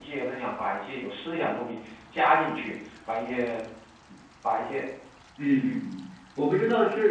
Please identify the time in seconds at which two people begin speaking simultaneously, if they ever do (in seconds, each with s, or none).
none